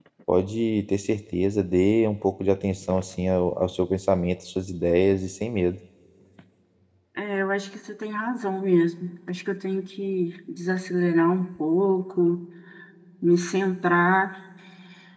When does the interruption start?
none

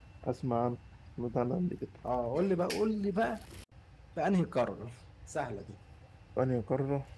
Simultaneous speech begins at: none

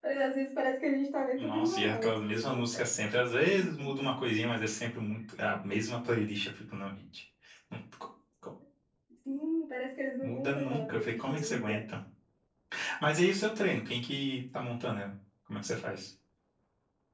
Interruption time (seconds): 1.4 s

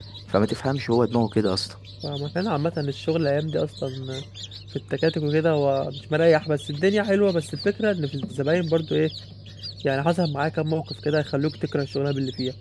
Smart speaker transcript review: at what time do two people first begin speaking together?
none

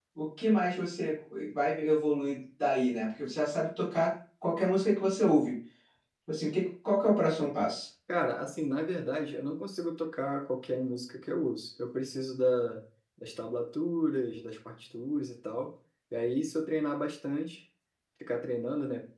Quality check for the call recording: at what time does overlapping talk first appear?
none

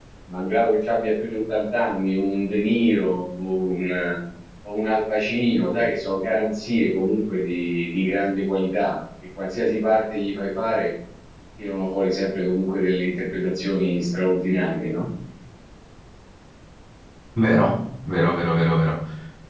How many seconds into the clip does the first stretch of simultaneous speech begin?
none

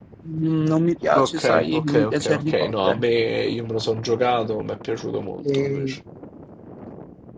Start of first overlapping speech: 1.2 s

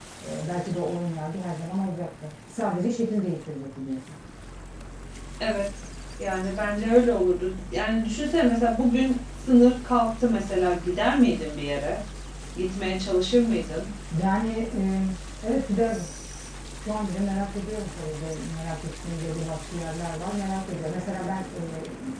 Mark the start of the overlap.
none

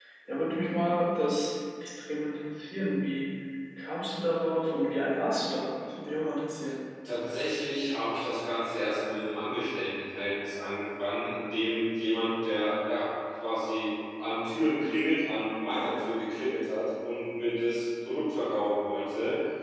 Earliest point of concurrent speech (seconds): none

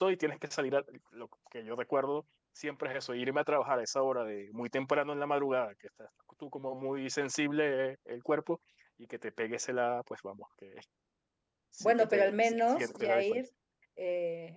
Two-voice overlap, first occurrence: 11.8 s

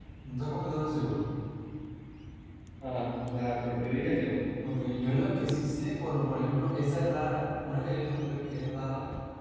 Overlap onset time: none

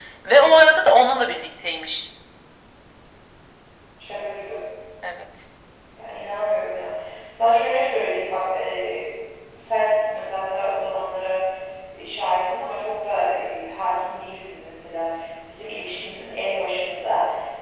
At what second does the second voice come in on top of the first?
none

